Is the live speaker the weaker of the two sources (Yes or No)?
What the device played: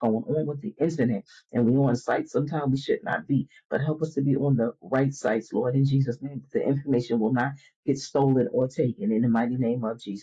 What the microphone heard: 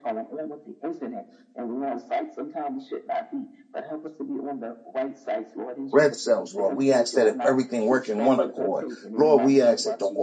No